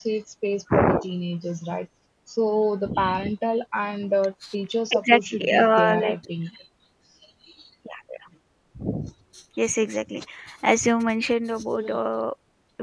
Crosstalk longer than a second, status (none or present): present